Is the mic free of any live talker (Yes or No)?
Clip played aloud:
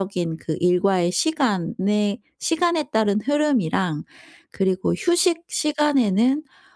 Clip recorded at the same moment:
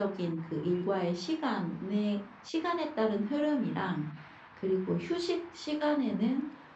Yes